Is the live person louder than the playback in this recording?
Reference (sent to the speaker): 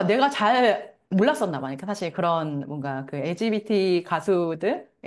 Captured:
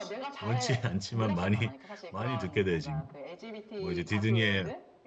Yes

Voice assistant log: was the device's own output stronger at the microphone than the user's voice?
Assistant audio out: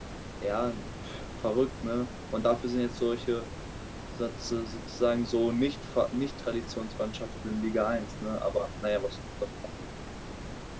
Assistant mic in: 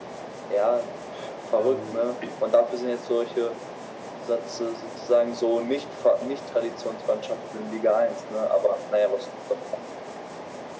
Yes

